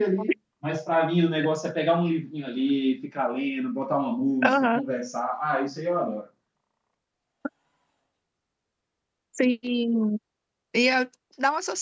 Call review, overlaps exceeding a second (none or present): none